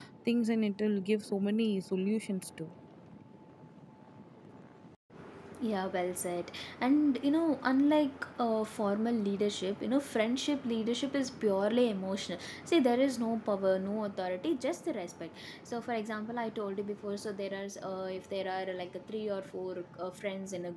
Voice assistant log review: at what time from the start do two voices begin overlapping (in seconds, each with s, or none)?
none